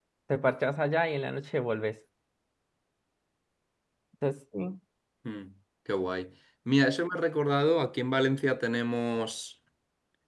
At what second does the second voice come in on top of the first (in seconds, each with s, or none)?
none